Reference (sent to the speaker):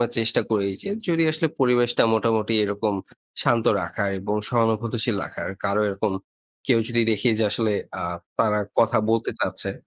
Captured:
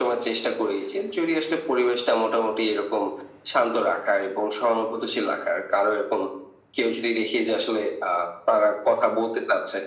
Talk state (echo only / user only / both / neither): echo only